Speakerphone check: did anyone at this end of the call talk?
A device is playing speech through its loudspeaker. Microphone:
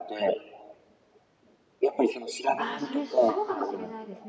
Yes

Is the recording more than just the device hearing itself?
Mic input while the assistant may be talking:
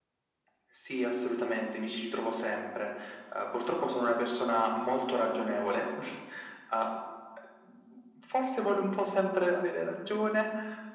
No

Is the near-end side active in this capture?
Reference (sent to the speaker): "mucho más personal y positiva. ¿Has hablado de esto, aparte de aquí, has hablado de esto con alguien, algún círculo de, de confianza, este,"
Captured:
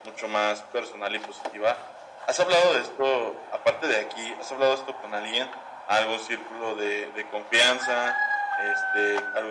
No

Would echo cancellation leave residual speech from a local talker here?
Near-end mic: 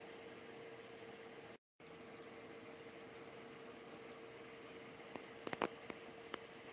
No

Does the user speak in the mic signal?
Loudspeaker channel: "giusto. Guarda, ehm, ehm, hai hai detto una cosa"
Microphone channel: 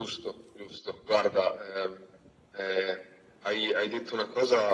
No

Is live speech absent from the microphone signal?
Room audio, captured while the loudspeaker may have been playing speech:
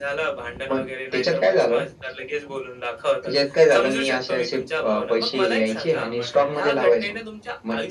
No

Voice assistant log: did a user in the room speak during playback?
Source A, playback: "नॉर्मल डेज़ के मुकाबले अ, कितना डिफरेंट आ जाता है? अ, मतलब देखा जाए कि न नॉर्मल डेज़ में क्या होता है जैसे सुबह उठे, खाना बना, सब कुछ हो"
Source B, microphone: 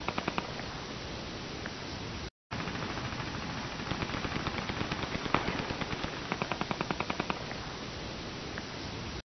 No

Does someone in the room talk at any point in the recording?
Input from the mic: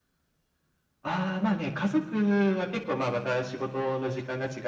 No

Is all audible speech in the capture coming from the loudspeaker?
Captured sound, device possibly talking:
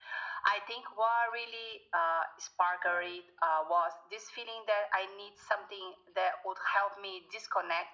No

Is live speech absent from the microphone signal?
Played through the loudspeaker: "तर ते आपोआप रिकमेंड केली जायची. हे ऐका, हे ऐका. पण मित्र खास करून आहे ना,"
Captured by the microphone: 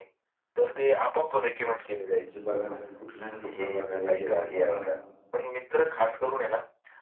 No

